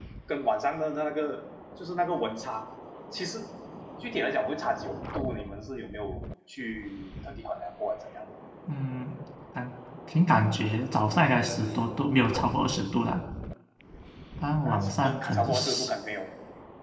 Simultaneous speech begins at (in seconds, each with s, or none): 14.6 s